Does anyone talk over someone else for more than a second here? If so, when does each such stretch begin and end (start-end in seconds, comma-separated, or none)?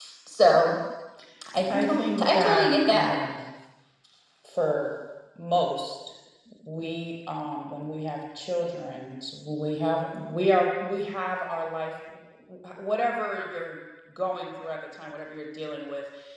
1.7-3.2